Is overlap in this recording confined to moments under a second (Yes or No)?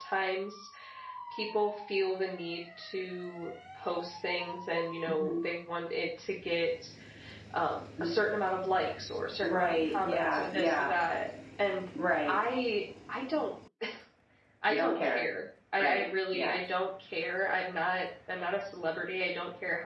No